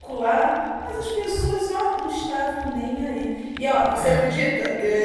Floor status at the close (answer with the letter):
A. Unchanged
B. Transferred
A